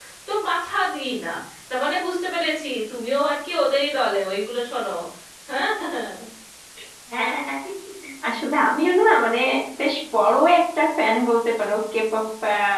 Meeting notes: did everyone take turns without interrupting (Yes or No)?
Yes